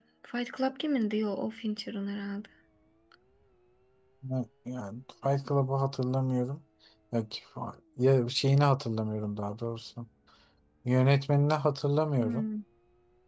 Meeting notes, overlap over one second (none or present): none